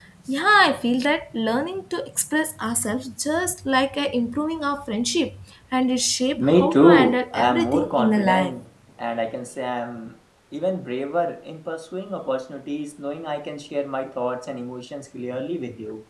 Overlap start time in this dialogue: 6.4 s

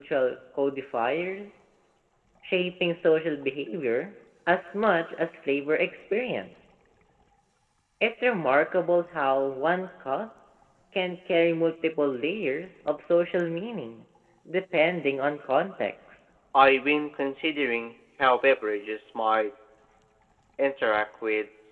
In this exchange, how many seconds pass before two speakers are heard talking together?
none

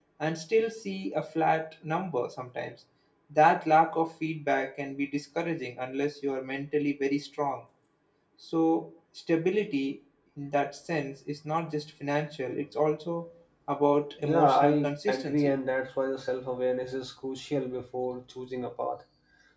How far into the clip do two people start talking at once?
14.2 s

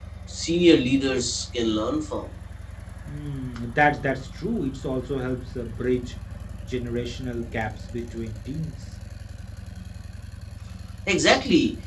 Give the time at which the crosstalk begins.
none

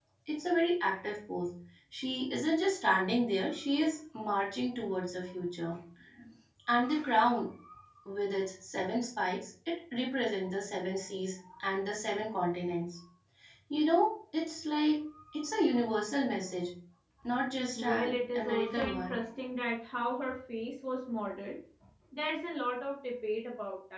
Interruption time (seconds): 17.8 s

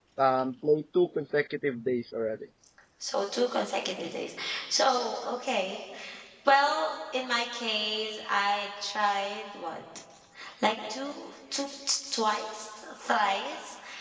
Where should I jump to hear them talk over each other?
none

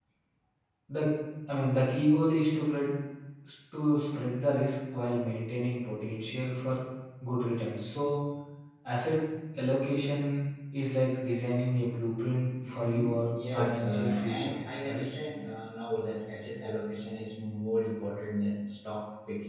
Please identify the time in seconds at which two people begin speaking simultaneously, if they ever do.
12.6 s

